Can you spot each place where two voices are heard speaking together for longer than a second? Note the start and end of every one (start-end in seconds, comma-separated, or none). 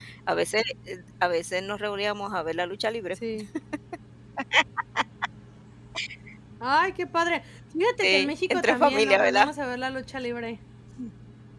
8.0-9.5